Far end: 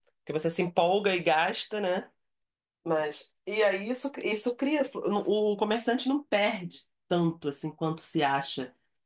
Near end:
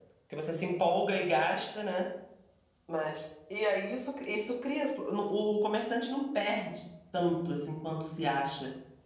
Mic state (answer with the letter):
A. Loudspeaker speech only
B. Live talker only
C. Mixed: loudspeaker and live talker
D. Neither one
A